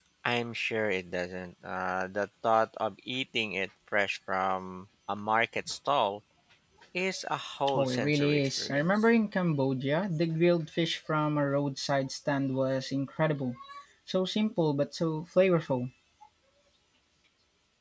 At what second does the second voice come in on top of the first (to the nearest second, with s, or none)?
8 s